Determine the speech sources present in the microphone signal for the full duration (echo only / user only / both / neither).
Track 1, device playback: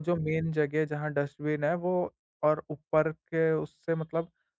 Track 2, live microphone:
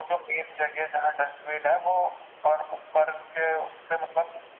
echo only